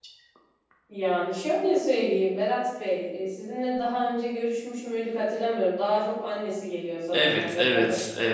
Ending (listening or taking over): taking over